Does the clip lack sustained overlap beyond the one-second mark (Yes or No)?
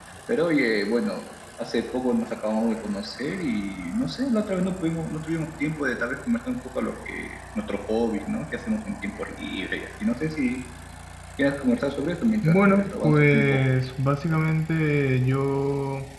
No